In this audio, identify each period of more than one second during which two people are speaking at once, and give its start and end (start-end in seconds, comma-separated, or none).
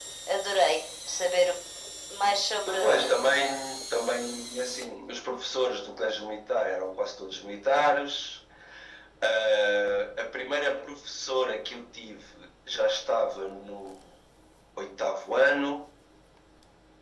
none